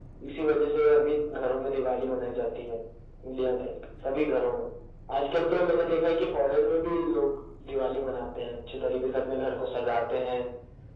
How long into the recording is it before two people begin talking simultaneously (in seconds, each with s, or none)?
none